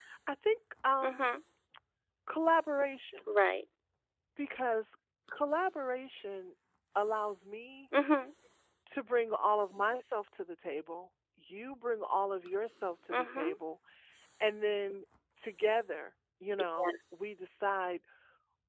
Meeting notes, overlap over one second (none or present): none